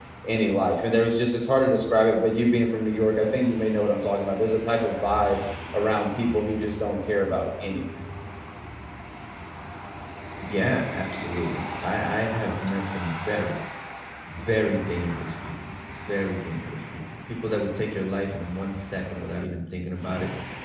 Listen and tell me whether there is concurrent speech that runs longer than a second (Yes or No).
No